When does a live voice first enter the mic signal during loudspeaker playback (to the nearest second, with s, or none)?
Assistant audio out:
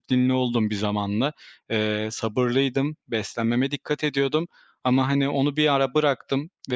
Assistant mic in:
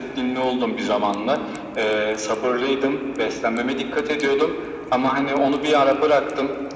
none